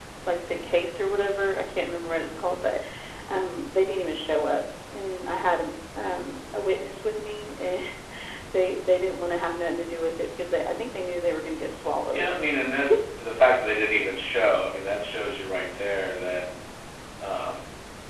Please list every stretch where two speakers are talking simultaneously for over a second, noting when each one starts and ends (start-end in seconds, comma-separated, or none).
none